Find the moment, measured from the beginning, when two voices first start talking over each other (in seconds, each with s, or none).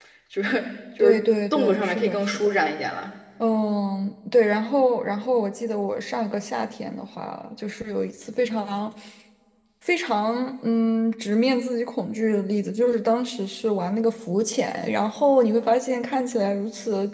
1.0 s